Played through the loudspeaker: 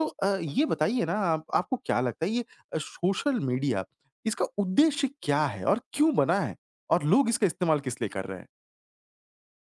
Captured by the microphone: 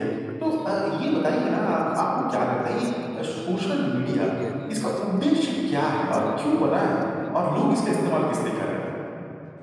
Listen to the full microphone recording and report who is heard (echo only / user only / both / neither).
both